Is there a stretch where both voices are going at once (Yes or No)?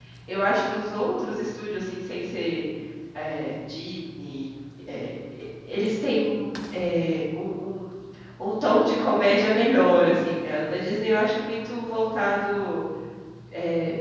No